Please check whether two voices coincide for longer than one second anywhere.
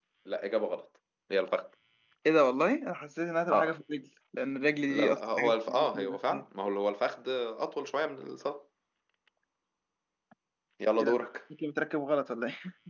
Yes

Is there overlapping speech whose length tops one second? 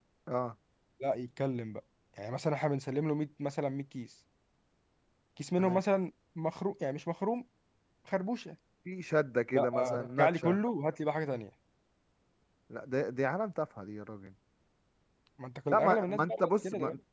Yes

